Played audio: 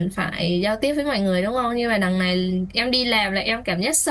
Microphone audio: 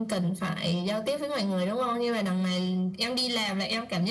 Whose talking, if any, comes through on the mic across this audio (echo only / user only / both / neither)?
echo only